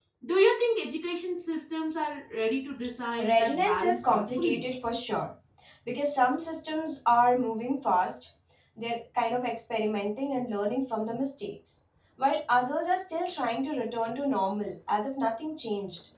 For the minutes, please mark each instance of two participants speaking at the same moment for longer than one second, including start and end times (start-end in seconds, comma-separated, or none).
3.2-4.6